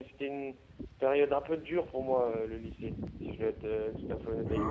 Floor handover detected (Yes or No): Yes